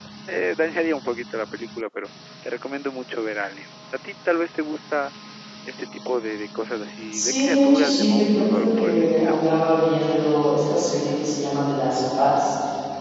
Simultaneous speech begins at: 7.1 s

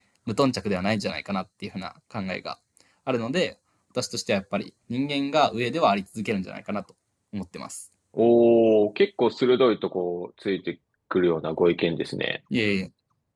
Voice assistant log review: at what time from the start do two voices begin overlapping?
none

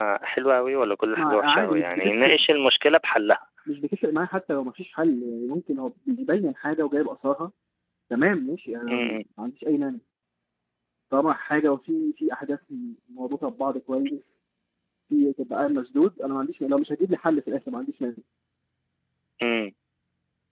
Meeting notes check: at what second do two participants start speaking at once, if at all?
1.2 s

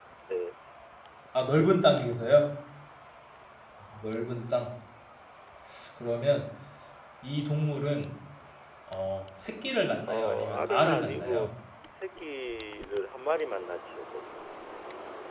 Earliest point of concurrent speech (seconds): 10.1 s

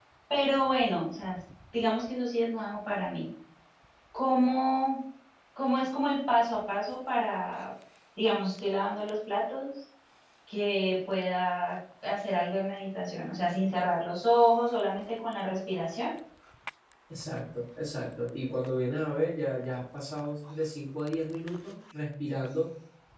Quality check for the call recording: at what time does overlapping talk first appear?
none

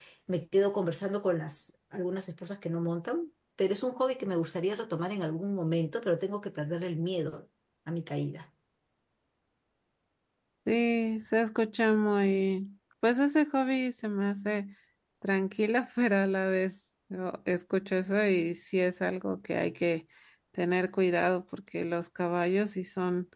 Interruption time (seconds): none

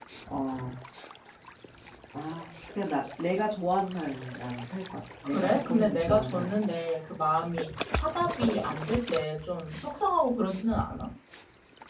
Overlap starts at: 5.3 s

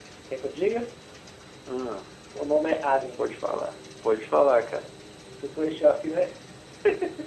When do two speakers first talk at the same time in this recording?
none

